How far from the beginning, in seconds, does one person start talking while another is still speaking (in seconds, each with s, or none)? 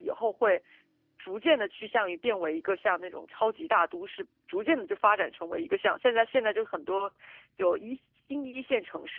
none